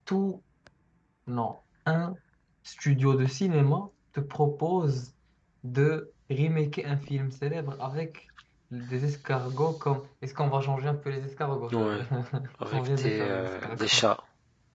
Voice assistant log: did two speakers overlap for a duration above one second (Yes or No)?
Yes